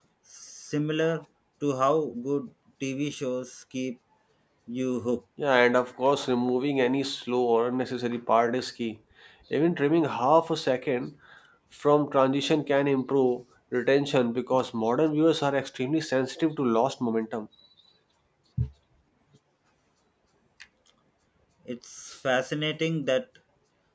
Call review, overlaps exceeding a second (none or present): none